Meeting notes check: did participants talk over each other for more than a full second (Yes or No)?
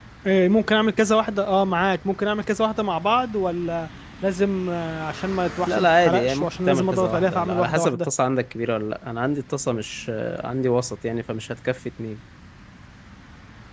Yes